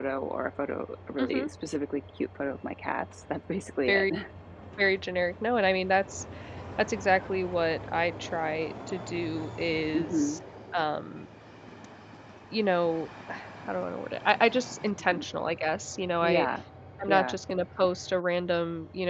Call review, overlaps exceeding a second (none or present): none